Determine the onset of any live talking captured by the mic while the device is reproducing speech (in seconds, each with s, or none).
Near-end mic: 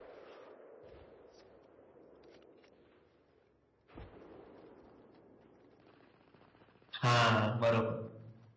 7.0 s